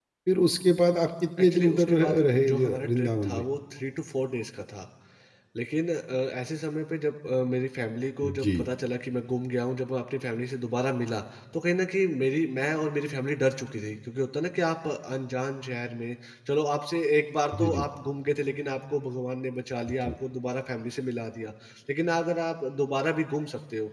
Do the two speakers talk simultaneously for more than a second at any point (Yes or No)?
Yes